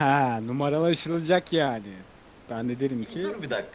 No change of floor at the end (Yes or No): No